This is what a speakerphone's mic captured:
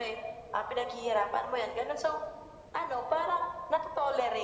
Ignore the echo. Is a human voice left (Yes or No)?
No